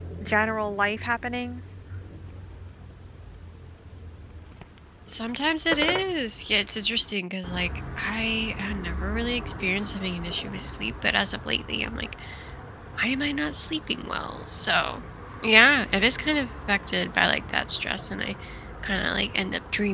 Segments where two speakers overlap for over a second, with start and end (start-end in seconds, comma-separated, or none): none